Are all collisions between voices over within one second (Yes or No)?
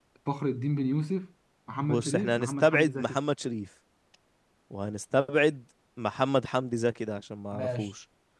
No